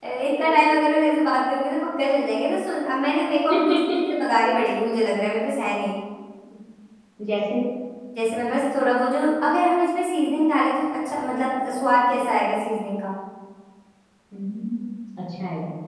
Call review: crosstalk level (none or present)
none